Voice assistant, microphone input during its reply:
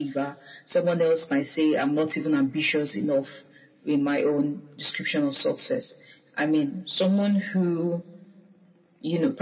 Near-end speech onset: none

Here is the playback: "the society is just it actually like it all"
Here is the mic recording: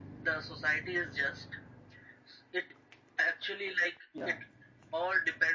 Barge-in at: 4 s

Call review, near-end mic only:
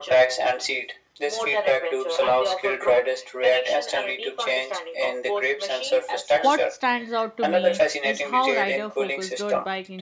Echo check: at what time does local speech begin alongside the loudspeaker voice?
6 s

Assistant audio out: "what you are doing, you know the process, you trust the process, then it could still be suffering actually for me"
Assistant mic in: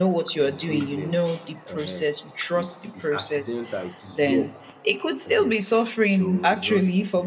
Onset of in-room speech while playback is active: 1 s

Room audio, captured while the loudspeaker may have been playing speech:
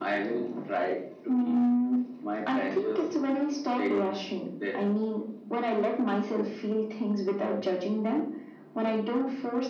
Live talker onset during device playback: none

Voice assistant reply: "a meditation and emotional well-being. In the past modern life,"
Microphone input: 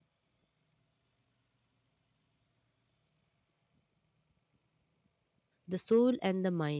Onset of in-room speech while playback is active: 6 s

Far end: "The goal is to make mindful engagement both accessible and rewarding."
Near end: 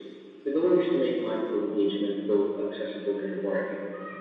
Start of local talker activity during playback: none

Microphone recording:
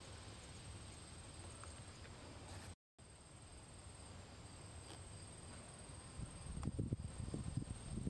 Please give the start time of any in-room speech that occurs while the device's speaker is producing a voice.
none

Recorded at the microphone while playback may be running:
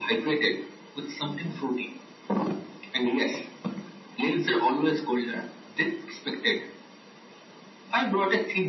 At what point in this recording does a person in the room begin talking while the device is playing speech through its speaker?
none

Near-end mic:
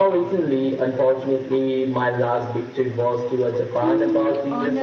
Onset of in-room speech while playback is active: 4 s

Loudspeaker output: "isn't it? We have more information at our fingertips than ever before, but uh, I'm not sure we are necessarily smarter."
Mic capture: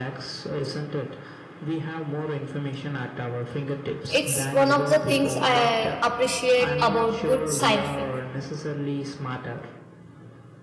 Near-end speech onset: 4 s

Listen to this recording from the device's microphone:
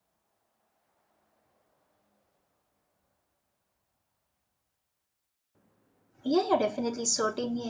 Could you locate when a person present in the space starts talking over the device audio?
6 s

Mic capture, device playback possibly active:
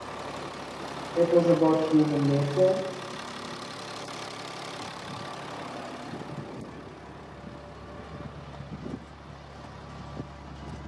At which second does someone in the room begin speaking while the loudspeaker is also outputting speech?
1 s

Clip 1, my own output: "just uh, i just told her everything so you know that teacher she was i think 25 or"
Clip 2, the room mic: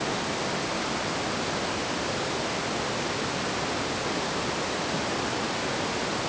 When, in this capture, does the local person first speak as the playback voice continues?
none

